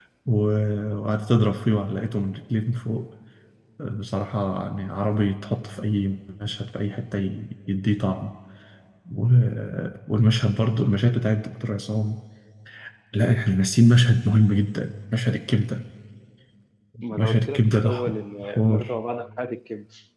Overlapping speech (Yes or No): Yes